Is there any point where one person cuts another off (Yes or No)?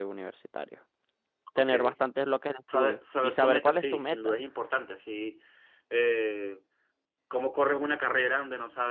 Yes